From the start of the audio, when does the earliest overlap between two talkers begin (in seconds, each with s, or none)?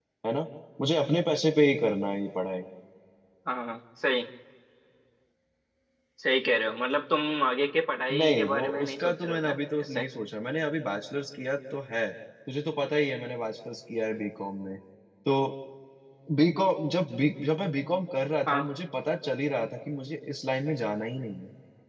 8.2 s